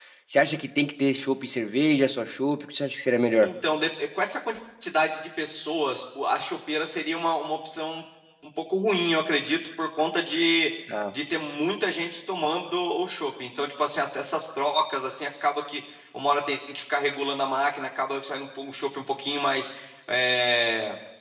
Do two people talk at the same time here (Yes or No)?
No